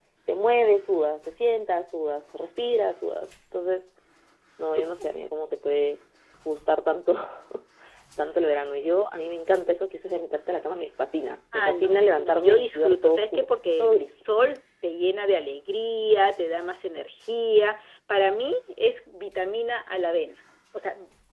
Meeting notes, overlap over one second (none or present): present